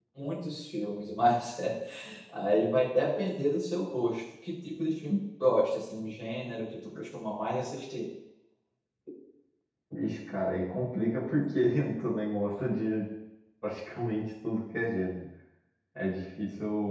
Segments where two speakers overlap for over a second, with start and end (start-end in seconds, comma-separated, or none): none